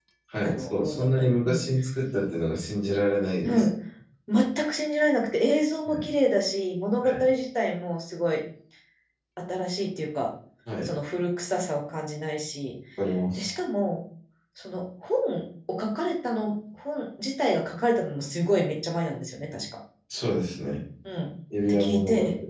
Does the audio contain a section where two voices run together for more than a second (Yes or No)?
Yes